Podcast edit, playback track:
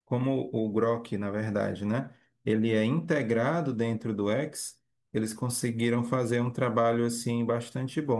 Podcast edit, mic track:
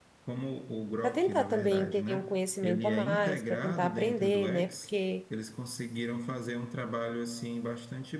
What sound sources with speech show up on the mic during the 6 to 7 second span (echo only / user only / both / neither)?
echo only